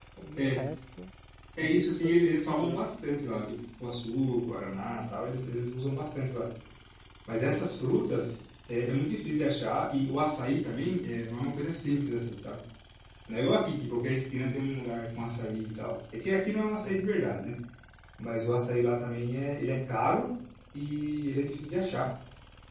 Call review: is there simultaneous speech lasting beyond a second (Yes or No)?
Yes